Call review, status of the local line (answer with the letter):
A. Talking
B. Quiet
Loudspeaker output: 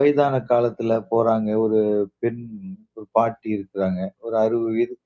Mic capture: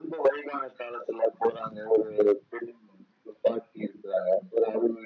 B